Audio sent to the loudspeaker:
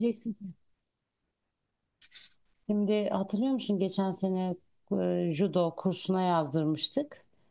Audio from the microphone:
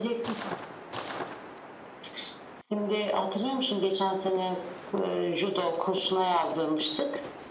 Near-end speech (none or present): none